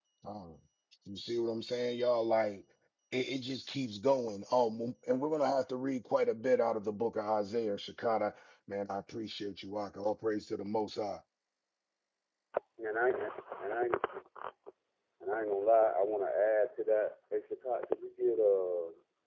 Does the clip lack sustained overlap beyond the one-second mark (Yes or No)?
Yes